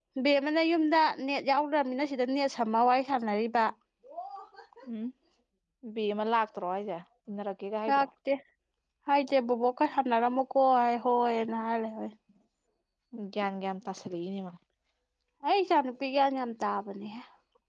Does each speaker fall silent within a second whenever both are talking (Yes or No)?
Yes